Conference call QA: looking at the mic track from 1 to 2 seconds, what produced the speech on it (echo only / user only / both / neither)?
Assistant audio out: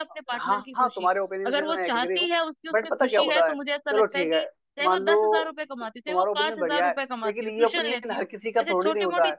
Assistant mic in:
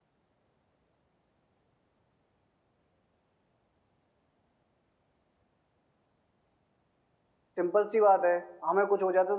neither